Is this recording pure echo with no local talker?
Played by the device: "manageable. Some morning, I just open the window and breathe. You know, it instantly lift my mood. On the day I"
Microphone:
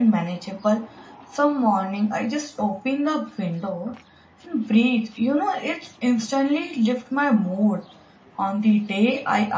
Yes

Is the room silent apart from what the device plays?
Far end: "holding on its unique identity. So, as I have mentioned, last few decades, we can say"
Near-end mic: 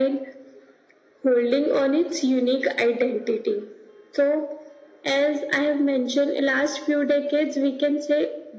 Yes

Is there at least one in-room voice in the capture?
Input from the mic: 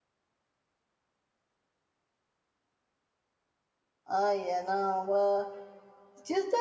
Yes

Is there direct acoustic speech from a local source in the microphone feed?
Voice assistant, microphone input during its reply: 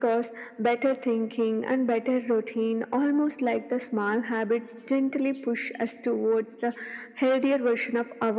No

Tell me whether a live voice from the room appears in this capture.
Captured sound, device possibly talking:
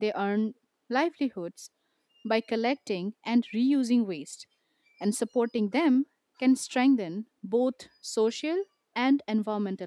Yes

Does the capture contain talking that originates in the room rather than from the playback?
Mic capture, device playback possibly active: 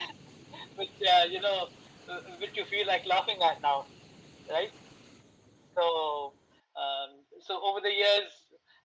No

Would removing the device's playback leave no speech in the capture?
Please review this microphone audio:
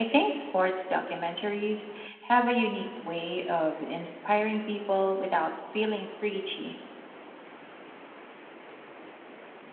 Yes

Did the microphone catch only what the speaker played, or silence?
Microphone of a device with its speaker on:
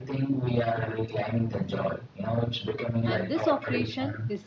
No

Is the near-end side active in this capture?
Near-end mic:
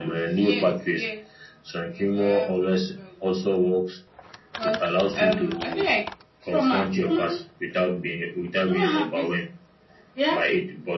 No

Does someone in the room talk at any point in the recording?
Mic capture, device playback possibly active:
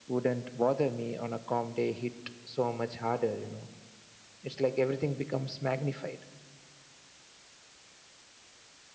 No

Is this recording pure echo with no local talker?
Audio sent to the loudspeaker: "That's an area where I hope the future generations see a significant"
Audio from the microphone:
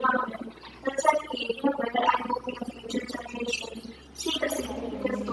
No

